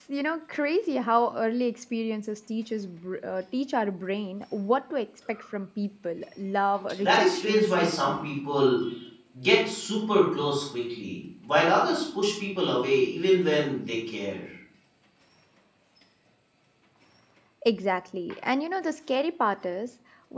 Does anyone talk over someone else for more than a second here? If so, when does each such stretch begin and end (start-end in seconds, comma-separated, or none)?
7.0-8.3